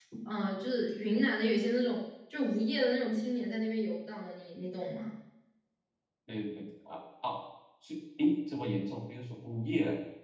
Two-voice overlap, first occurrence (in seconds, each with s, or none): none